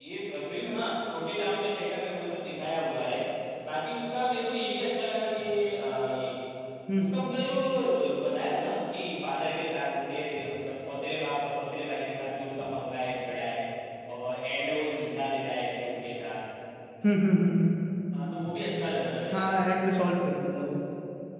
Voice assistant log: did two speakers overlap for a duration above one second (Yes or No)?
No